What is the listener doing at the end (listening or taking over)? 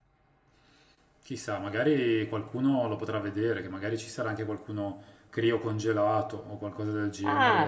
taking over